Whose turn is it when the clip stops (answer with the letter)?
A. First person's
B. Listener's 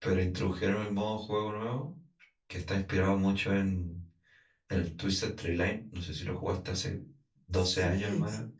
B